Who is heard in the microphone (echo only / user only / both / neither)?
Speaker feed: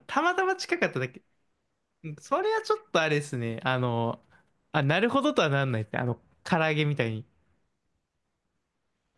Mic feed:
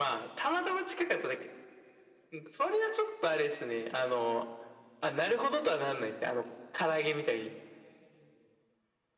echo only